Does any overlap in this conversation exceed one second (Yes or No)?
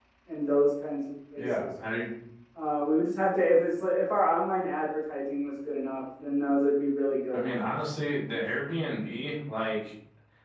No